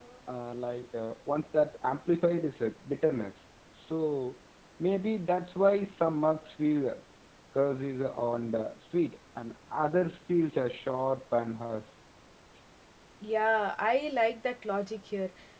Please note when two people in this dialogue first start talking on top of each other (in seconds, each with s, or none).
none